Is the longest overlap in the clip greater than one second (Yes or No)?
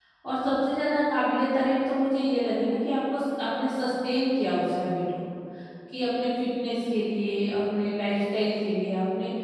No